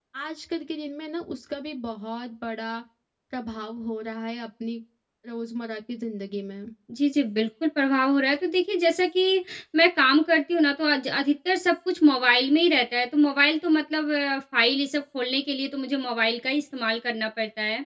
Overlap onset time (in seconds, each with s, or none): none